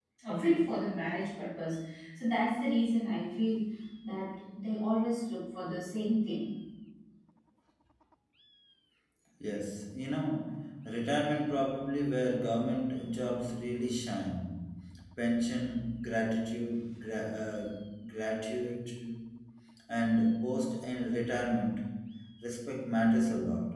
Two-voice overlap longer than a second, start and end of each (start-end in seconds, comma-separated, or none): none